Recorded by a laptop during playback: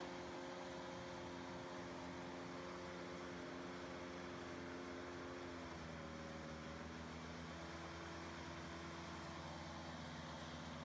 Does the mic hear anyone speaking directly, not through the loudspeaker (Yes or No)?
No